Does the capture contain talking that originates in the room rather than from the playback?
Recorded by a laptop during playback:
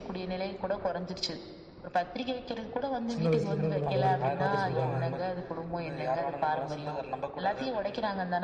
Yes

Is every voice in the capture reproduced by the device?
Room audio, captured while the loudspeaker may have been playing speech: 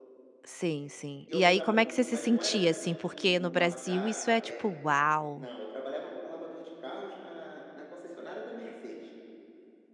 No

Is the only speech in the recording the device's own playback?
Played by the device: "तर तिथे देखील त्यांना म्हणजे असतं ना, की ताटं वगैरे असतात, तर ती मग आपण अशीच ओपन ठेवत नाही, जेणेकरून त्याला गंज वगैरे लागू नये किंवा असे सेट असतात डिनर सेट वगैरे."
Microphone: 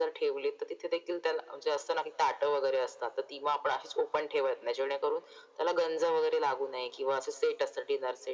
Yes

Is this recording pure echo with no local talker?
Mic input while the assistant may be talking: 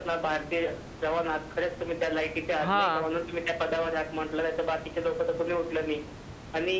No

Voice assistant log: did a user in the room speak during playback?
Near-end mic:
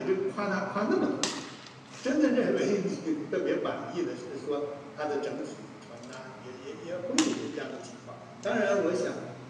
No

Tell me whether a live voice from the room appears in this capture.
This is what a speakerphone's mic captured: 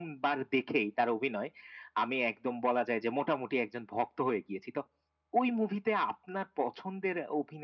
No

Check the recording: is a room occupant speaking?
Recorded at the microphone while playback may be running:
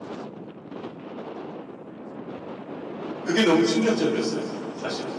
Yes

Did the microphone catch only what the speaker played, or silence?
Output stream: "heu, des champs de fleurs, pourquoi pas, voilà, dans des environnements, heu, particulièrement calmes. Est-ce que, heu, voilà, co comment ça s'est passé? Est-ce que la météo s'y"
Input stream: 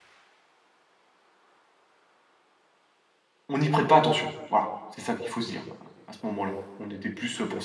No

